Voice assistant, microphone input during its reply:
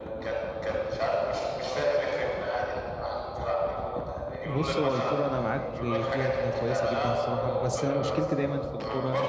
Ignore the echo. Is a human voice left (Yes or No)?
Yes